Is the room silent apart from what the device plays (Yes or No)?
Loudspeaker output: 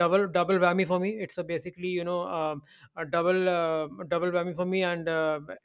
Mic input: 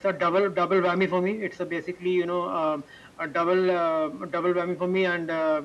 Yes